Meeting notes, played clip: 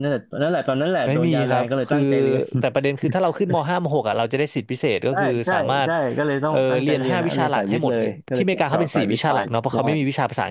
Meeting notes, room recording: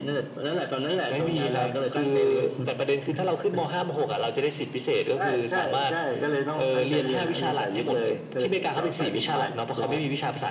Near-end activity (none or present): none